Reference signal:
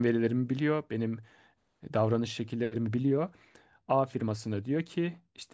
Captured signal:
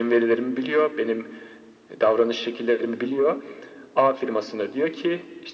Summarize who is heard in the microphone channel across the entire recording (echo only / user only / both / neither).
echo only